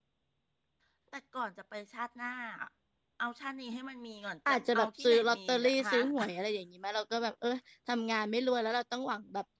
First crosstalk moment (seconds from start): 4 s

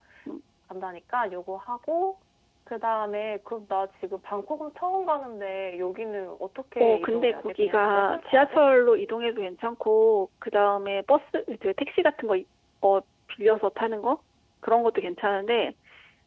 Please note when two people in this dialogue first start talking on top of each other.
7 s

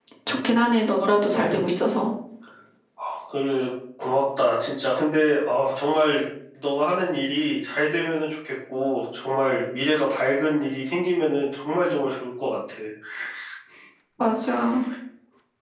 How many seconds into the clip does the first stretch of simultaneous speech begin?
none

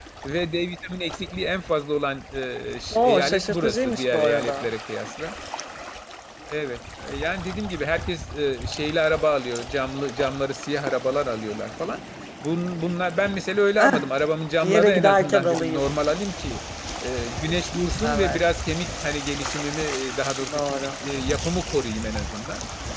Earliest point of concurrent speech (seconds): 3 s

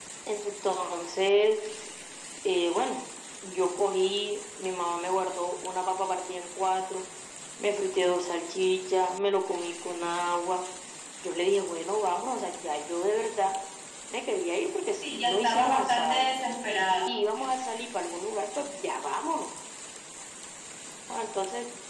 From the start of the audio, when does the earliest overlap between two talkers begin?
15 s

